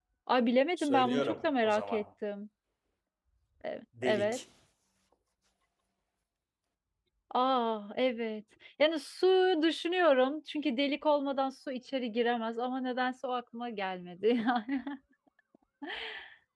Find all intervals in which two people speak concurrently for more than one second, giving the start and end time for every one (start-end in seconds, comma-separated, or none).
0.8-2.0